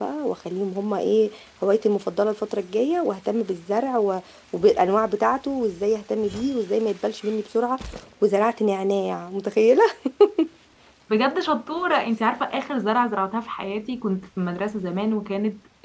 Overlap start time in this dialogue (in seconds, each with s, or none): none